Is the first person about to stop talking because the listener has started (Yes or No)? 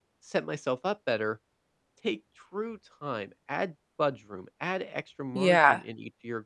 No